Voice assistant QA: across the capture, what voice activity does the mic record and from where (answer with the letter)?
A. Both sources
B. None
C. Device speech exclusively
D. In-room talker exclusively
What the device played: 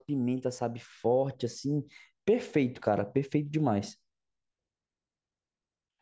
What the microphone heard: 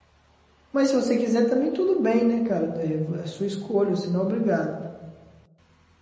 D